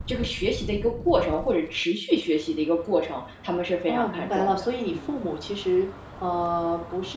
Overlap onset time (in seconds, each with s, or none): 3.8 s